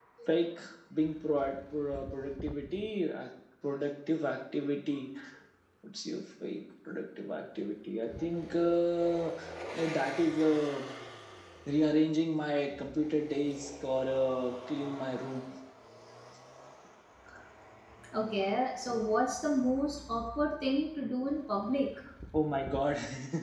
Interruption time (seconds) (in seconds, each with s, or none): none